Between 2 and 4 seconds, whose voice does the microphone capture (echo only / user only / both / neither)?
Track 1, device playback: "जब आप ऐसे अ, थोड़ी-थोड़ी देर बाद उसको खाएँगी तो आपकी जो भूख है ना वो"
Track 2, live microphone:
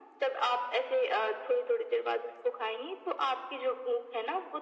echo only